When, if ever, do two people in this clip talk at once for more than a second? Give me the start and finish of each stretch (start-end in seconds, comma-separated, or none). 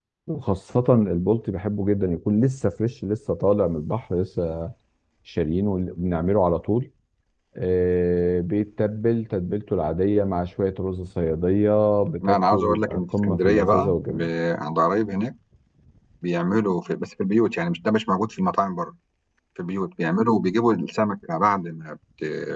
12.2-14.3